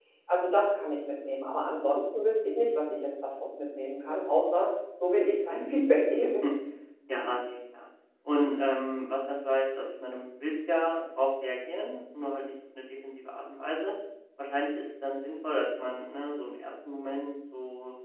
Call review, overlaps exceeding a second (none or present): none